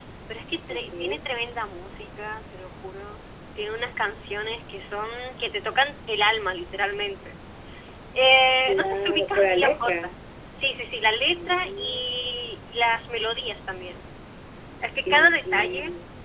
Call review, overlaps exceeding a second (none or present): present